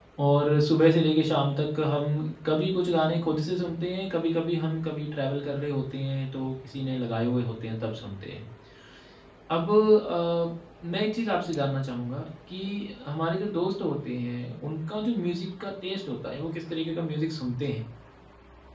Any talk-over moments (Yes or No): No